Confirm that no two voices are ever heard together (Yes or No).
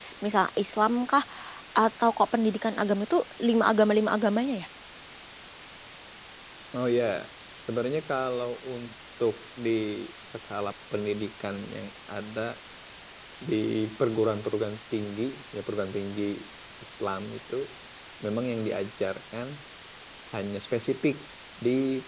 Yes